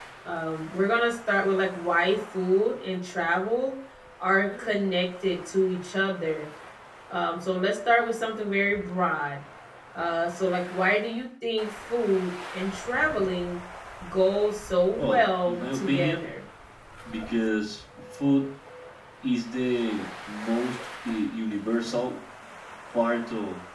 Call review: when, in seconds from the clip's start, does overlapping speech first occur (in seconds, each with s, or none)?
15.0 s